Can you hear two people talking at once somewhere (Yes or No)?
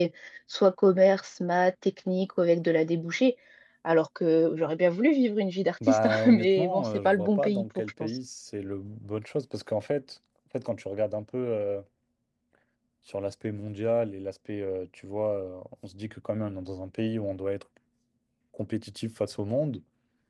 Yes